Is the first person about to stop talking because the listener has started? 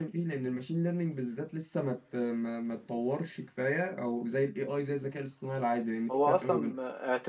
Yes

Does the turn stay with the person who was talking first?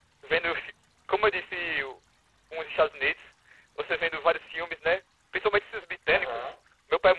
Yes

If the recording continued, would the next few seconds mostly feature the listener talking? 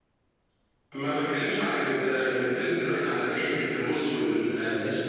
Yes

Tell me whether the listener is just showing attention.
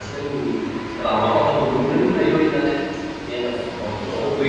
No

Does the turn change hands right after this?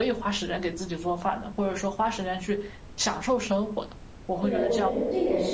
Yes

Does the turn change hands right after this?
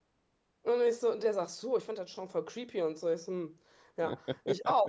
No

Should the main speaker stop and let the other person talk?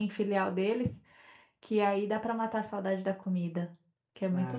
Yes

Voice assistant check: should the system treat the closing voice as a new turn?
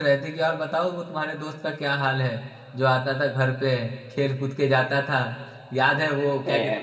No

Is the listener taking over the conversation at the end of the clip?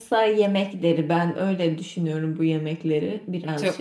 Yes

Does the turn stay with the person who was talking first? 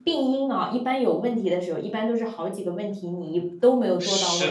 No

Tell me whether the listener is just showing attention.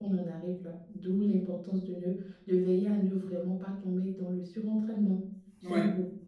Yes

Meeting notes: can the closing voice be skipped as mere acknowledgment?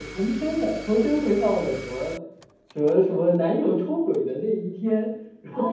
No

